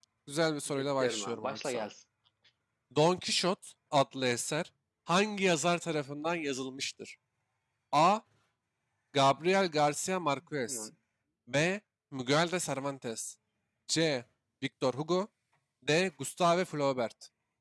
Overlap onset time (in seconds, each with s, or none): 0.7 s